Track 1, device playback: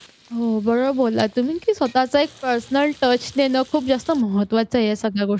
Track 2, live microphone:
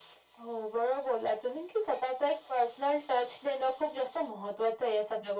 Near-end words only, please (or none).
none